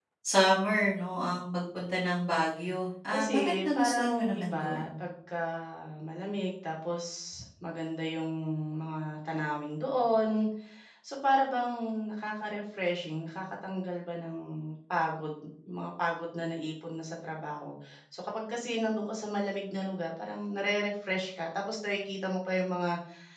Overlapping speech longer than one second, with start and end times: 3.1-4.9

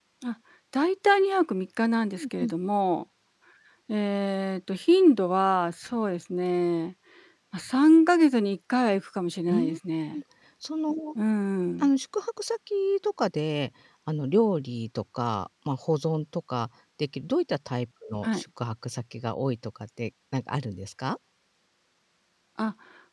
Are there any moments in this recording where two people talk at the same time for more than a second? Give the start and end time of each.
none

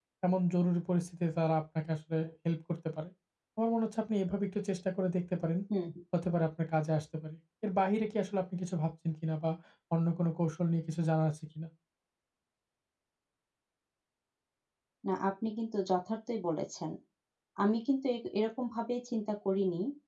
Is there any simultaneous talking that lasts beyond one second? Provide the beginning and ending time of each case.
none

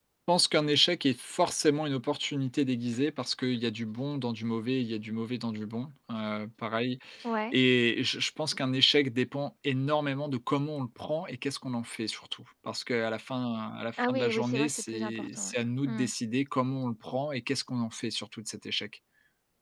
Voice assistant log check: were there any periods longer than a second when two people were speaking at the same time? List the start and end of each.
14.0-16.1

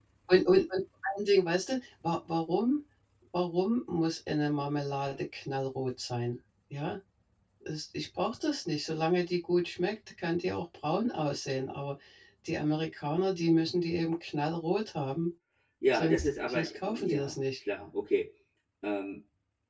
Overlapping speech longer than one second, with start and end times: 15.9-17.4

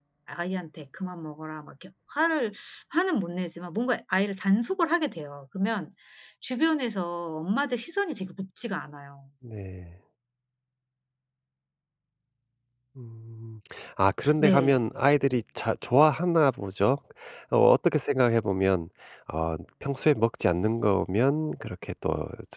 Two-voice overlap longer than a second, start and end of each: none

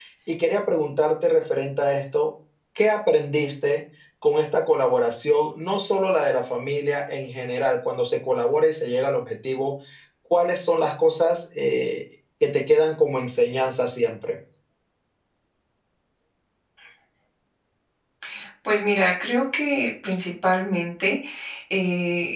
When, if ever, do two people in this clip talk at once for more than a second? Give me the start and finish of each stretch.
none

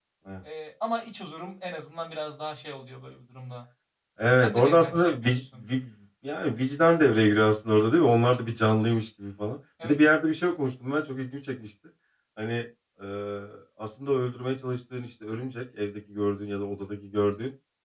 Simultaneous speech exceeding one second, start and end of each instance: 4.4-5.6

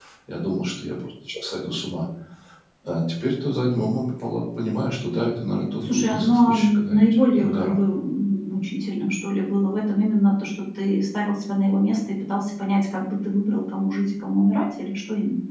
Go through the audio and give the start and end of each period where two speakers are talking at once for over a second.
5.8-7.8

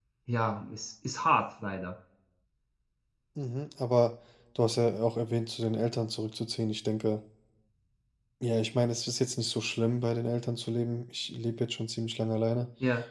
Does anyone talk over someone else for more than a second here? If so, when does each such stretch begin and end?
none

